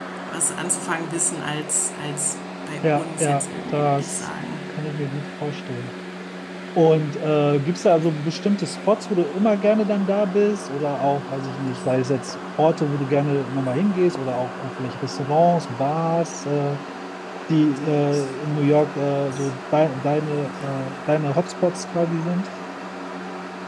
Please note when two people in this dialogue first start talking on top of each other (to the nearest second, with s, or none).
3 s